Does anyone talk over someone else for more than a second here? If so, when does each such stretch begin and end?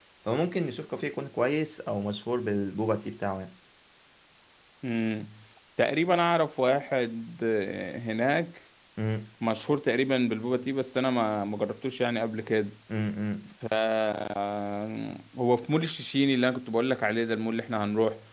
none

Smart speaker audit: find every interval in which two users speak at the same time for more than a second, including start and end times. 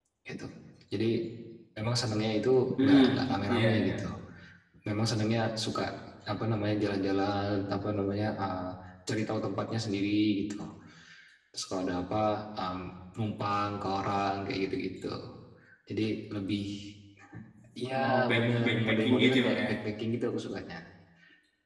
18.0-19.6

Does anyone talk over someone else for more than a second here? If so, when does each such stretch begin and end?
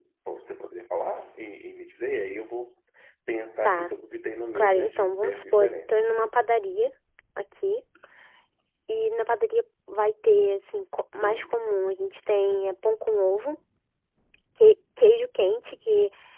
4.6-5.9

